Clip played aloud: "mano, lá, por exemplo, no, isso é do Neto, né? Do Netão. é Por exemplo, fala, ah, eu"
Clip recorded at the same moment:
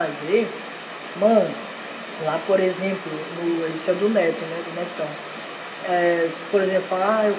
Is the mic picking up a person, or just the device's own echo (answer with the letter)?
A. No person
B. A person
A